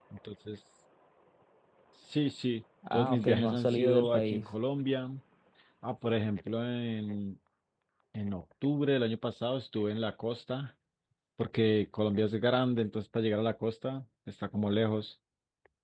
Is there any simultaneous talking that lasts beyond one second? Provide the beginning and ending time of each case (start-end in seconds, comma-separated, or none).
2.9-4.5